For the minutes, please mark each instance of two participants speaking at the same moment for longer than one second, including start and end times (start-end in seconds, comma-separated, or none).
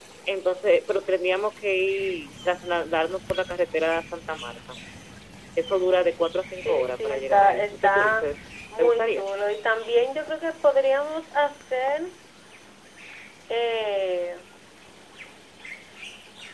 6.6-8.3